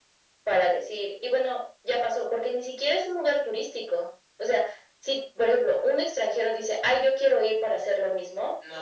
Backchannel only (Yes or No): Yes